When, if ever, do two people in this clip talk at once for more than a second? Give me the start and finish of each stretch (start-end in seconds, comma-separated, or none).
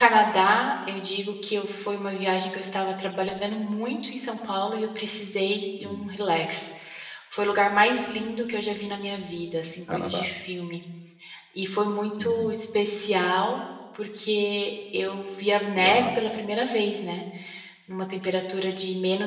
none